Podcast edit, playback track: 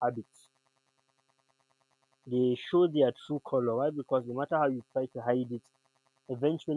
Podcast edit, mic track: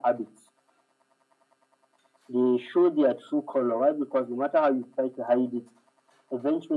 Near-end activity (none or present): none